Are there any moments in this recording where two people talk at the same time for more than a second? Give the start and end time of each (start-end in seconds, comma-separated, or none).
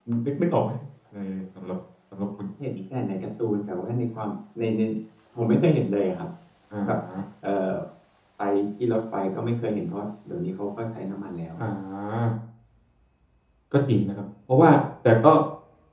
none